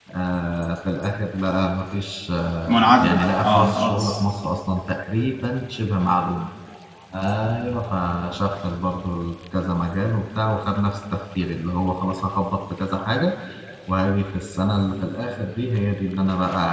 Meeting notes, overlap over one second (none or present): present